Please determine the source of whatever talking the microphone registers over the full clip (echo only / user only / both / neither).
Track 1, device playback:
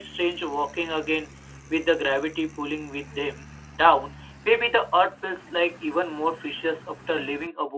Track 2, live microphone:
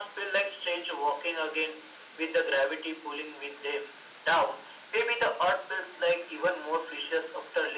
echo only